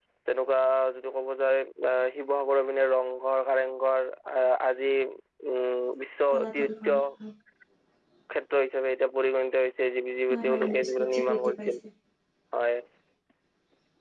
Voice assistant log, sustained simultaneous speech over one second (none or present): present